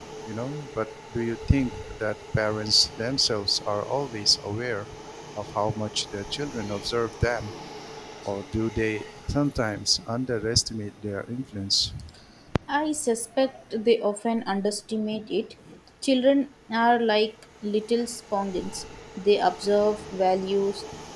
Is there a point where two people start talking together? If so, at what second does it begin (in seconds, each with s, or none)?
none